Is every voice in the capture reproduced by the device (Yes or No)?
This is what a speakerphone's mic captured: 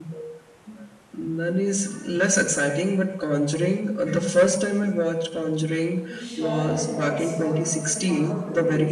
No